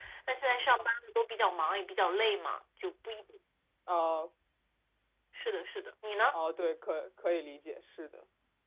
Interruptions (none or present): none